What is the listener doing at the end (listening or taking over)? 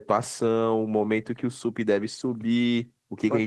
listening